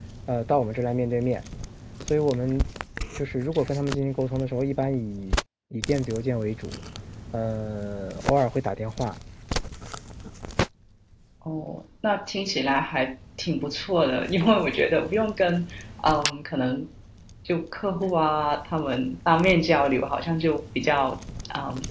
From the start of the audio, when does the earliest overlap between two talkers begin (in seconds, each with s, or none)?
none